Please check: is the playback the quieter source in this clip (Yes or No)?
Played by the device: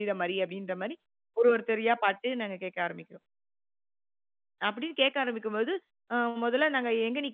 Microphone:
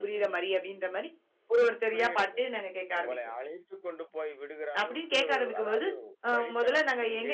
No